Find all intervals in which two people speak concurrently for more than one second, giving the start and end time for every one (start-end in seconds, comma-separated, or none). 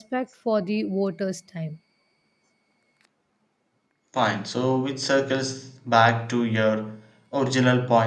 none